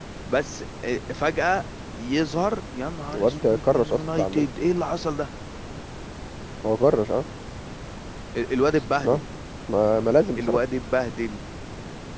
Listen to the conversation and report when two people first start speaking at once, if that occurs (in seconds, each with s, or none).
3.1 s